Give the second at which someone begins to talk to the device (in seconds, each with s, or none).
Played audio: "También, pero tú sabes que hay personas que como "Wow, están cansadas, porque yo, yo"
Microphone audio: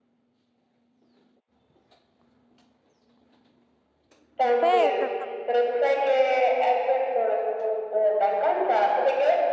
4.6 s